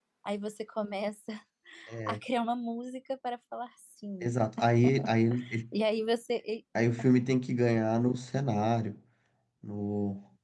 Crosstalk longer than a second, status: none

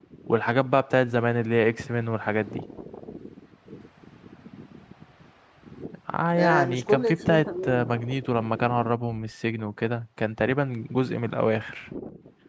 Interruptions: present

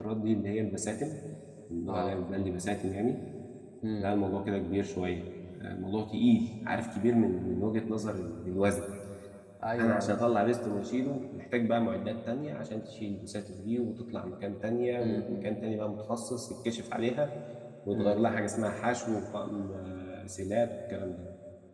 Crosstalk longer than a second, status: none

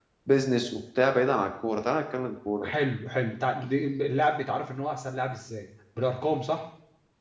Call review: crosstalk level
none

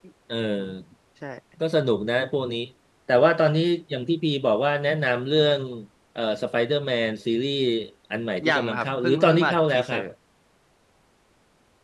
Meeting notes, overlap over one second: present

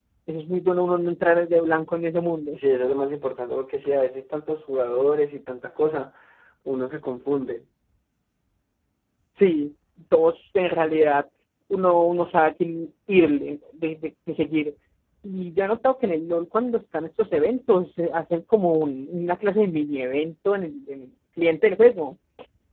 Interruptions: none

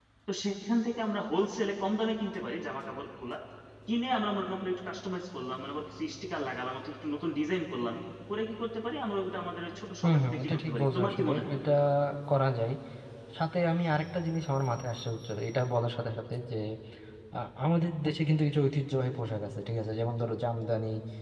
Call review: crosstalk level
present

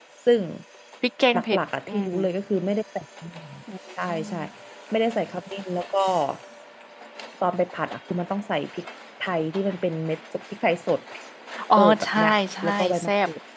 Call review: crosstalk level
present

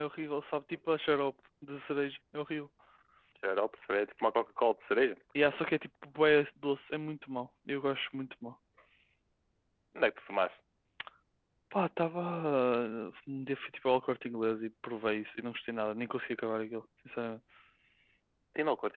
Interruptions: none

